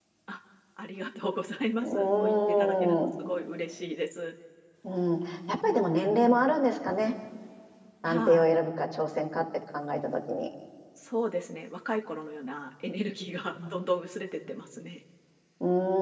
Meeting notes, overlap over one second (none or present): present